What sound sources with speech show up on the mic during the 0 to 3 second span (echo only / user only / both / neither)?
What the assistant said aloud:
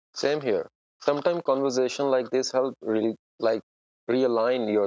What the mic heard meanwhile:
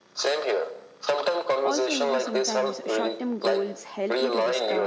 both